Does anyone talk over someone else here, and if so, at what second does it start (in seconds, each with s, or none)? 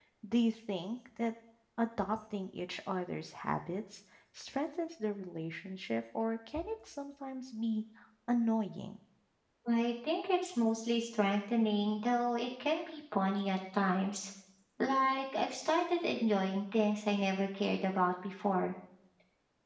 none